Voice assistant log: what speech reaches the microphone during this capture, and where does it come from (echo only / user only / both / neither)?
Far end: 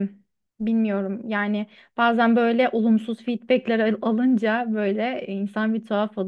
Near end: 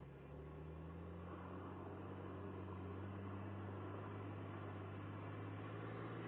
neither